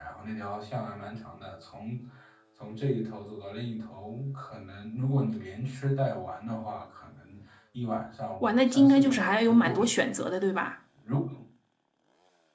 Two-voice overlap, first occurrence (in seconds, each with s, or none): 8.4 s